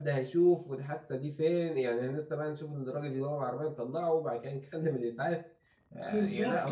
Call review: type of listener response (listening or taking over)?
taking over